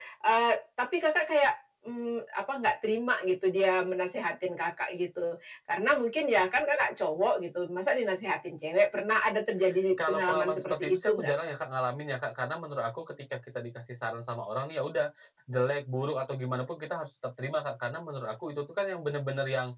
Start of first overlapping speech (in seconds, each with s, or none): 10.1 s